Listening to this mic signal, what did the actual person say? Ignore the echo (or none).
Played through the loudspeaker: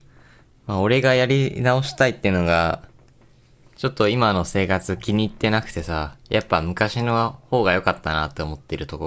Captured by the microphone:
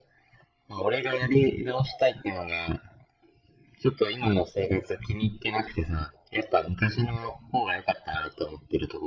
none